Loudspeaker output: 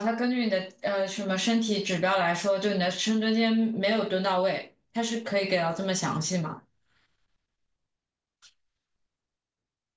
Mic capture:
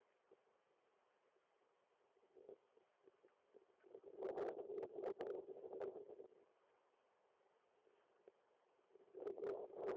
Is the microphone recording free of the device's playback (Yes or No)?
Yes